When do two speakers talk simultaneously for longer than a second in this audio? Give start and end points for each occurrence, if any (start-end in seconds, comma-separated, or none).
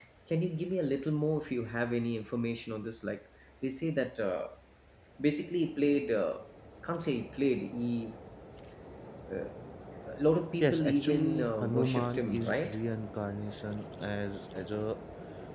10.6-12.8